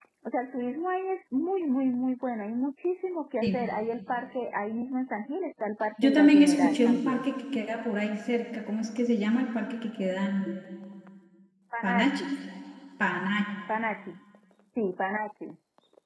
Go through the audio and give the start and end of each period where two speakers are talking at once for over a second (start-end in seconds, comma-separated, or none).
6.0-7.2